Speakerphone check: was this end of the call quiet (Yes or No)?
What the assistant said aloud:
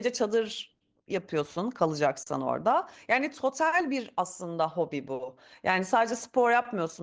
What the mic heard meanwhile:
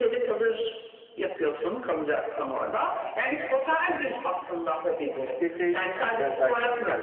No